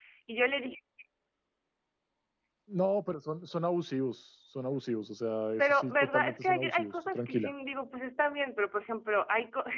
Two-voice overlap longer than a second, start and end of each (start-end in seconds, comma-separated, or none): 5.6-7.5